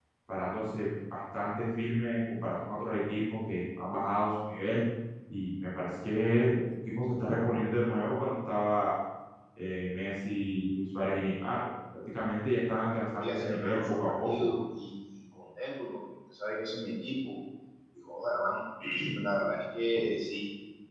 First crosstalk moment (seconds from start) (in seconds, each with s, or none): 13.1 s